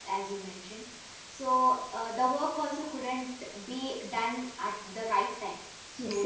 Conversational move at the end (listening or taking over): listening